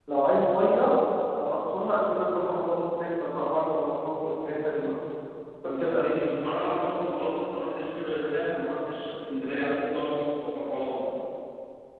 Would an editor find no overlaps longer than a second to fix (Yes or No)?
Yes